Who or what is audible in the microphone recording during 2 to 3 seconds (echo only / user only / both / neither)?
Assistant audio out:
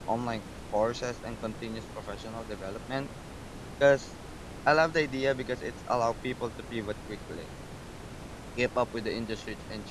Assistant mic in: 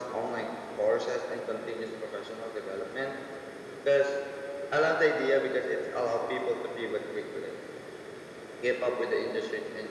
echo only